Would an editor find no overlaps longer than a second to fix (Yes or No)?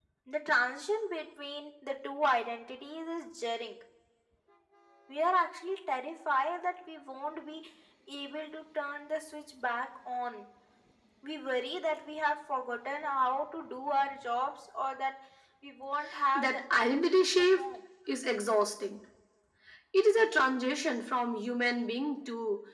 No